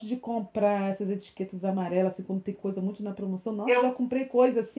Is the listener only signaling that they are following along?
Yes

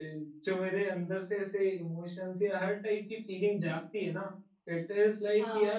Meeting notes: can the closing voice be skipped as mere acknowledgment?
Yes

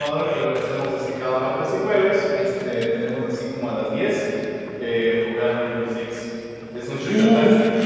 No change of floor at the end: No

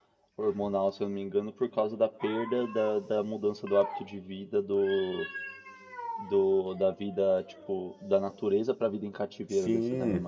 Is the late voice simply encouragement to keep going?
No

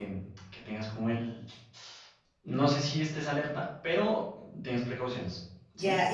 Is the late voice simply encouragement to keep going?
No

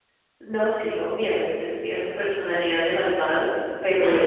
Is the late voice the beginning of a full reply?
No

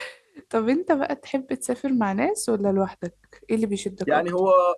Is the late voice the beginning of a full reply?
Yes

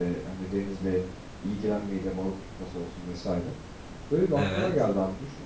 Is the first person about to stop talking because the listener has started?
No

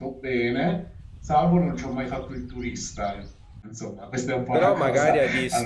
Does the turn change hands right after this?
Yes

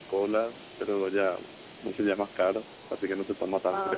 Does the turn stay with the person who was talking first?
No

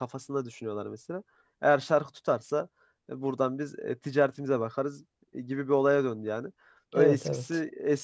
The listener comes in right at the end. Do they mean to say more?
No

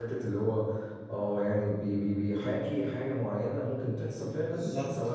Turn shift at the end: Yes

